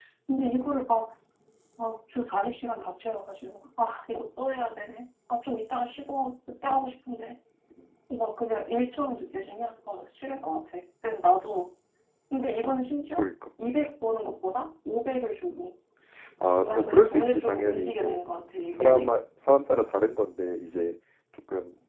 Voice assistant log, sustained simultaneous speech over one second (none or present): present